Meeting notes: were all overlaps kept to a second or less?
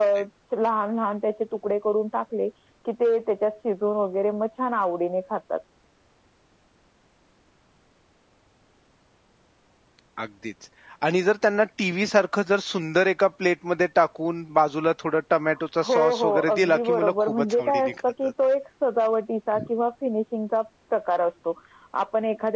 No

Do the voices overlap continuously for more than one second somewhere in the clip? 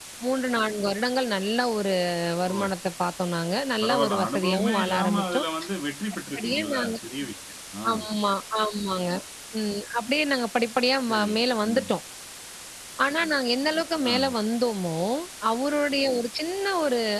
Yes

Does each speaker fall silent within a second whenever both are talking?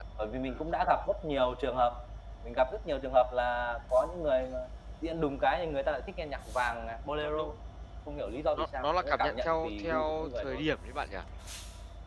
No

